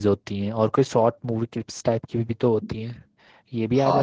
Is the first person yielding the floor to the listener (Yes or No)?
Yes